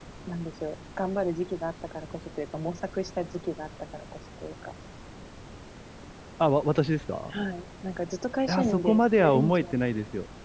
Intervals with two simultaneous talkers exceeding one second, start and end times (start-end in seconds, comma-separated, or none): 8.5-9.7